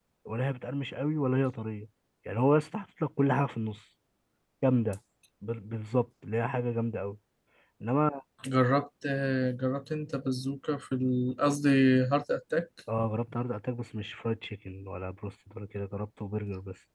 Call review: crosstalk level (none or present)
none